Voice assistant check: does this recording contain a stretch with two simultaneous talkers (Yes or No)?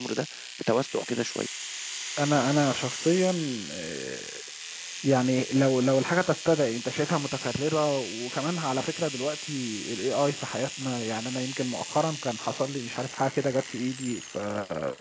No